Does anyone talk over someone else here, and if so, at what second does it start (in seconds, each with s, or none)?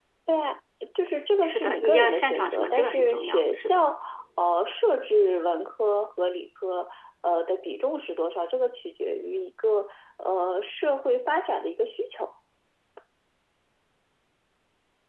1.4 s